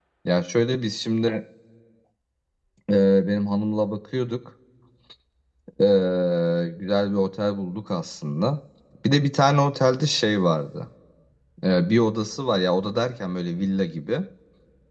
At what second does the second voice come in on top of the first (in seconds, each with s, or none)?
none